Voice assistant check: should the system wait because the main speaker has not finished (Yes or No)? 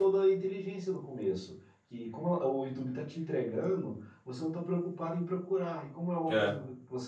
Yes